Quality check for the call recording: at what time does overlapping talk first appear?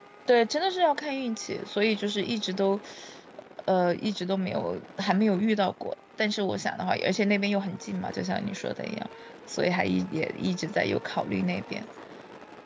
none

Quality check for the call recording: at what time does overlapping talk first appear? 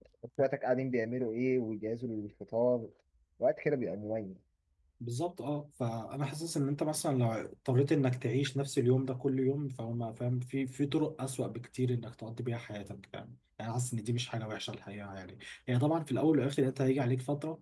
none

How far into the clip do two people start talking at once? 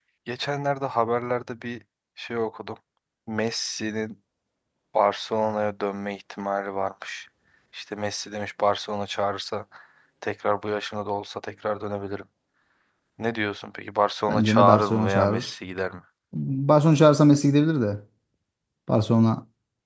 14.3 s

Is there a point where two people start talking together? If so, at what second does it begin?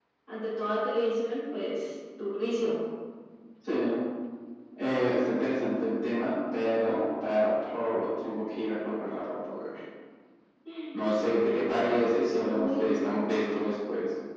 11.3 s

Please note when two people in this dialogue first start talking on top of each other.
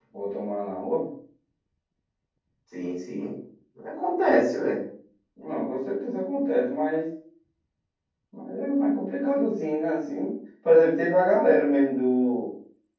none

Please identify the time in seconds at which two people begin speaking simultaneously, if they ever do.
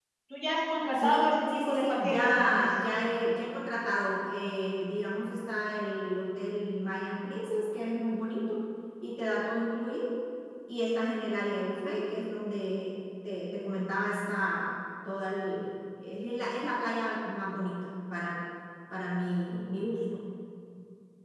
1.0 s

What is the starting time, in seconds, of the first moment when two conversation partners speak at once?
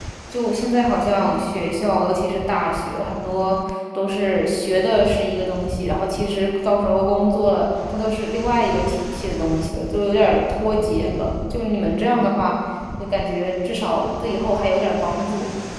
none

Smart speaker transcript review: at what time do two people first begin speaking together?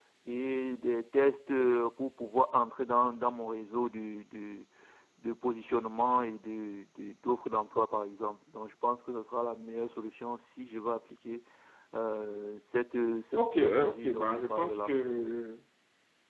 13.3 s

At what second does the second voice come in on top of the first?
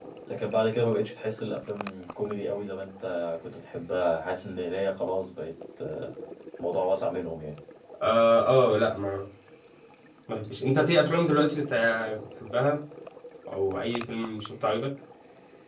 none

